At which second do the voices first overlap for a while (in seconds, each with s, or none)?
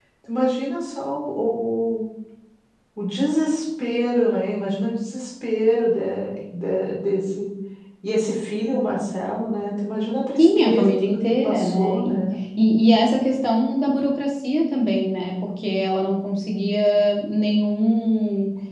10.4 s